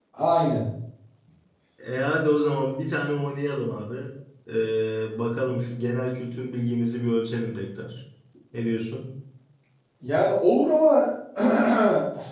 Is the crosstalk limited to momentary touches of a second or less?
Yes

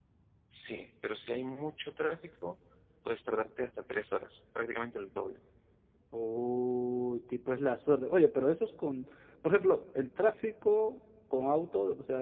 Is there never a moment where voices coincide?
Yes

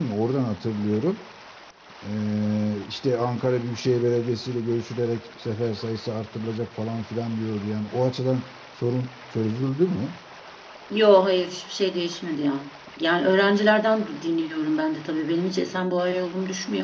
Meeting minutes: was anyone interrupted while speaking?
No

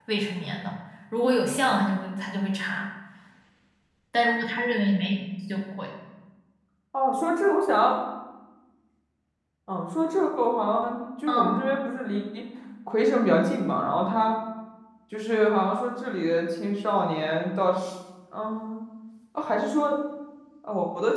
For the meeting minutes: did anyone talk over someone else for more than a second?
No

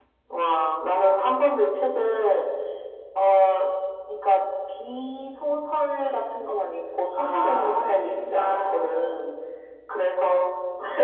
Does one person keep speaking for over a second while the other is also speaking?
Yes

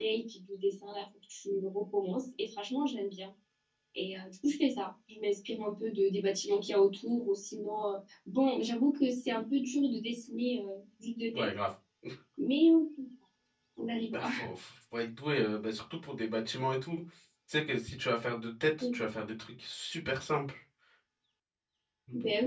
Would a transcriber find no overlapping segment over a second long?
Yes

